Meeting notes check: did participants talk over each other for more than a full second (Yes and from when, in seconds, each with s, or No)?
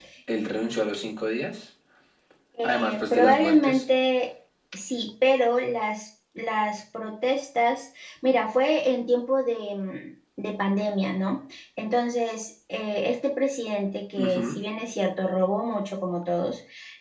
Yes, from 2.6 s